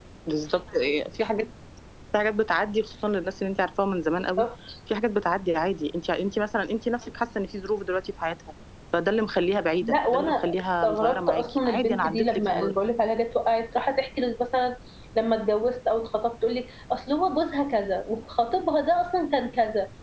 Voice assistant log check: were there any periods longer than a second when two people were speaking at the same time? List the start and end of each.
9.8-12.8

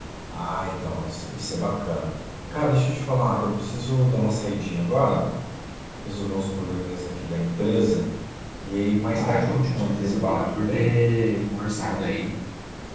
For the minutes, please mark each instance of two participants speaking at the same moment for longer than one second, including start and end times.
9.1-10.9

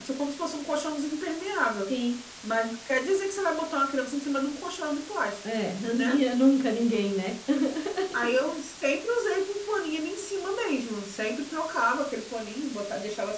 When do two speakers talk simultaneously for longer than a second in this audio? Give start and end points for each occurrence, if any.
none

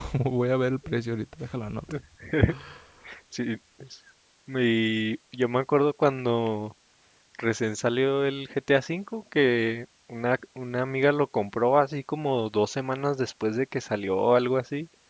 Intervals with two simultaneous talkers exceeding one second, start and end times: none

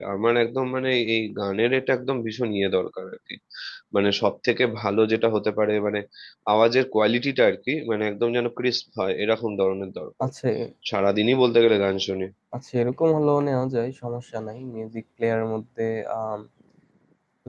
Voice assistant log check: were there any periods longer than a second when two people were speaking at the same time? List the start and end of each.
none

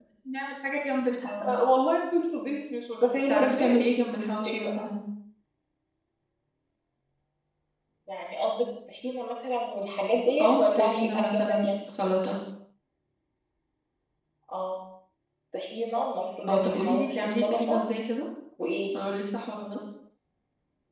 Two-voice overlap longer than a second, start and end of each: 10.4-11.7, 16.5-17.8

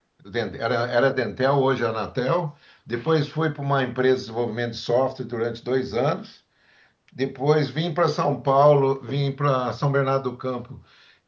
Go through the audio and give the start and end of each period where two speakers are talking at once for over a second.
none

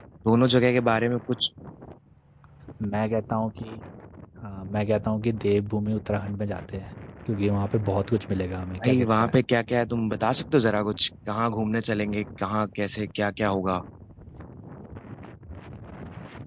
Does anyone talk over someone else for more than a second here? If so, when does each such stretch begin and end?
none

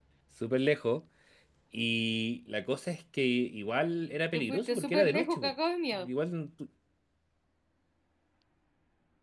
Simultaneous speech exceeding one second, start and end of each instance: 4.3-5.5

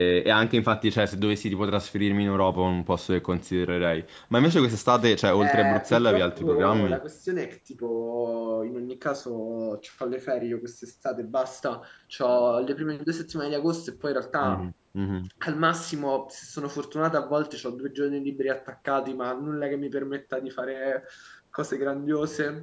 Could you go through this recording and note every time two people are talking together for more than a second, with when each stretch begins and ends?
5.4-7.0

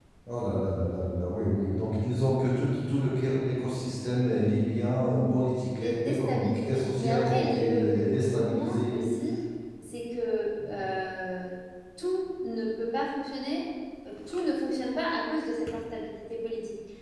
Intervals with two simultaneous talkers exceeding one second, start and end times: 5.8-9.0

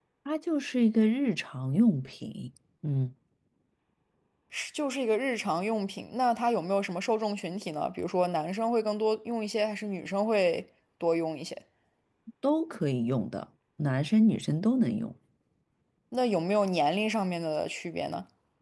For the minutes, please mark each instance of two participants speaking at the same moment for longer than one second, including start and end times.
none

